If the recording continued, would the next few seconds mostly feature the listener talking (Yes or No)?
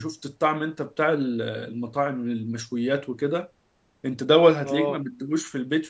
No